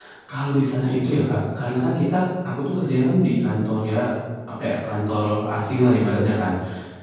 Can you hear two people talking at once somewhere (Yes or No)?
No